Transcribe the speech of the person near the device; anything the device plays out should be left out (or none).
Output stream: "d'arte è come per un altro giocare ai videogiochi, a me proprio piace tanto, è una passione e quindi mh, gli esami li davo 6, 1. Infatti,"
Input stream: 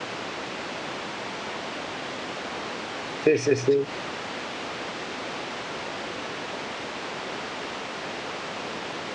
Sì, sì, sì.